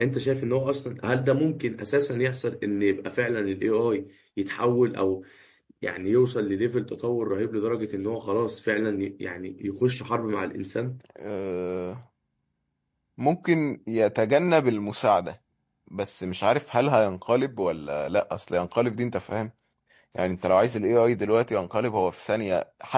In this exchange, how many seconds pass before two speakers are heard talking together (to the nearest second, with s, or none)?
none